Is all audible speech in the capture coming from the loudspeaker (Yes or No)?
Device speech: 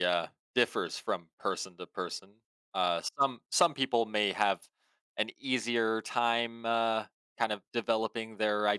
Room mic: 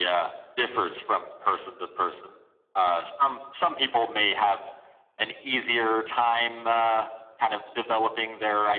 Yes